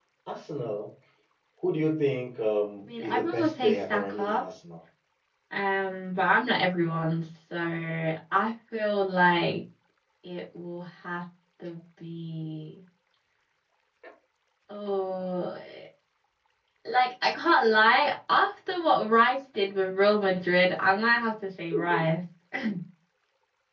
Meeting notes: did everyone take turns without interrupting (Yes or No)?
No